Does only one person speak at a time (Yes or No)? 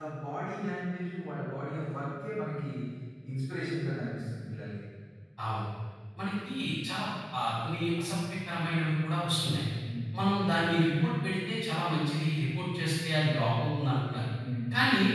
Yes